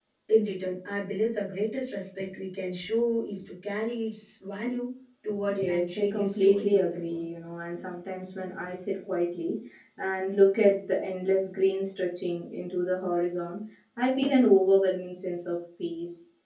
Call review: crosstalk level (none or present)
present